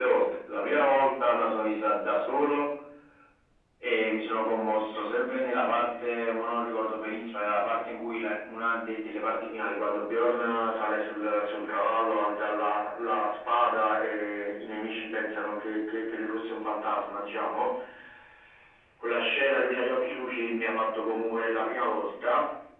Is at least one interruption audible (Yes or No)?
No